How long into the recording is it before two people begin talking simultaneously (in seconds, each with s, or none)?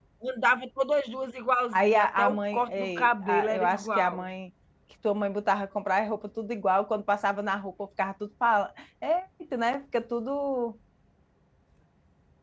1.7 s